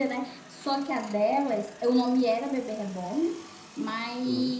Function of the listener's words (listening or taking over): listening